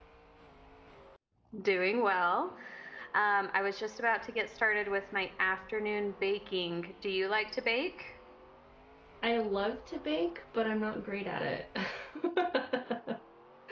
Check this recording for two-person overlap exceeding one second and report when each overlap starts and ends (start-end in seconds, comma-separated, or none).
none